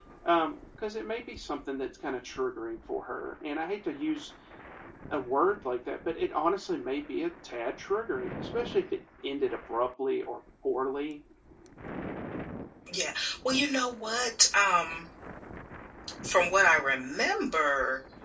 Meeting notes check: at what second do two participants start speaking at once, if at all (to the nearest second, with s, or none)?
none